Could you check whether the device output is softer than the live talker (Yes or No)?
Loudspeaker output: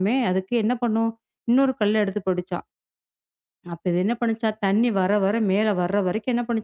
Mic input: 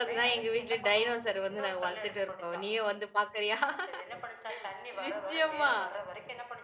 Yes